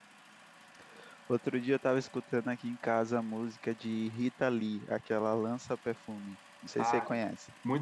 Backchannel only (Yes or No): No